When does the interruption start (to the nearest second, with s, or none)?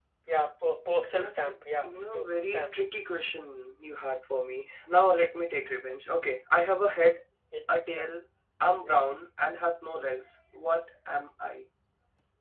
1 s